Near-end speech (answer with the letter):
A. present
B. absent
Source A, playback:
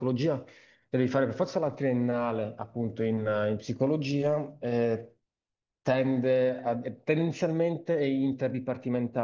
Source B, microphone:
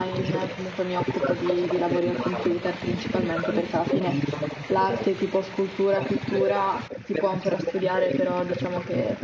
A